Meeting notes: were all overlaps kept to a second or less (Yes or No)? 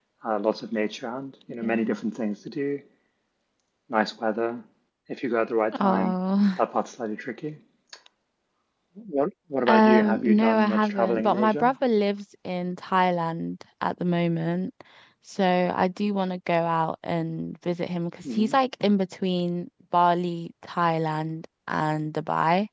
No